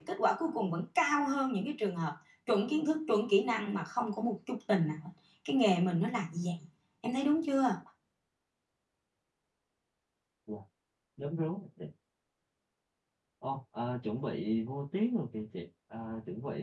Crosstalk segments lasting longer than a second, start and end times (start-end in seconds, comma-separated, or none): none